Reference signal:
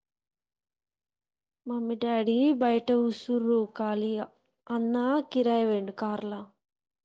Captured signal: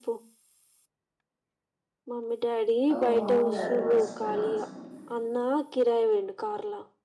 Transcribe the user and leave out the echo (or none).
ఓ అవునుగాదు మరిశిపెయిన మరిశిపెయన